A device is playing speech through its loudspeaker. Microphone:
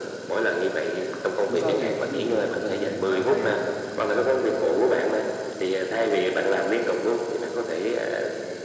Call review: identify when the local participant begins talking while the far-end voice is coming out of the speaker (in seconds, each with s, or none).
1.4 s